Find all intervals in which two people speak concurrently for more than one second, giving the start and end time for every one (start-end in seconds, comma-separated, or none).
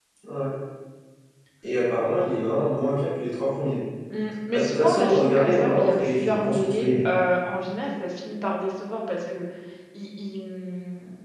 4.5-6.9